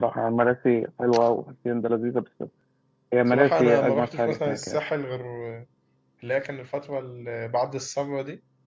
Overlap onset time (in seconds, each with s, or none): 3.3 s